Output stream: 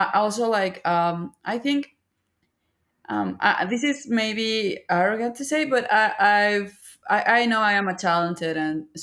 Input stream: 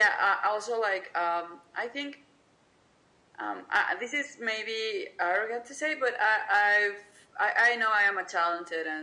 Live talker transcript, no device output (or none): none